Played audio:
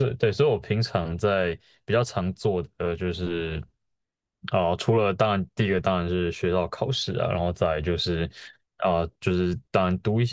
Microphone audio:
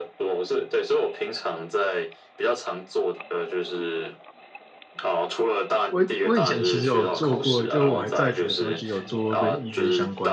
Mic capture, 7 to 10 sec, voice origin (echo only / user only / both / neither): both